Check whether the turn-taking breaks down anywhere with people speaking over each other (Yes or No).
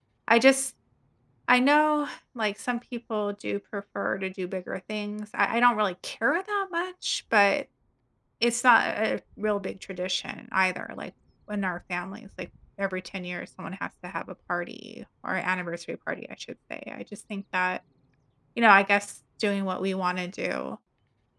No